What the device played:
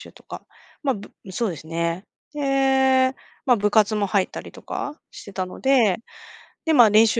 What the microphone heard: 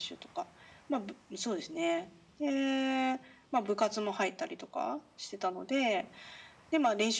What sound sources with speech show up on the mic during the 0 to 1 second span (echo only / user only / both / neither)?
echo only